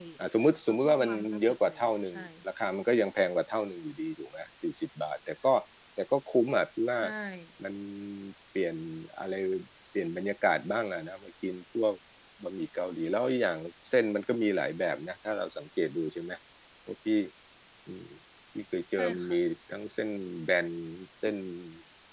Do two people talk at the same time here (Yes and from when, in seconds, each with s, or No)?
Yes, from 0.8 s